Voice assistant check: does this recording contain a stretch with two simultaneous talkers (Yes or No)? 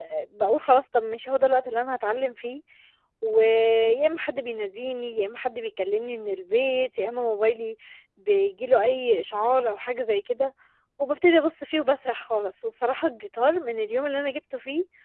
No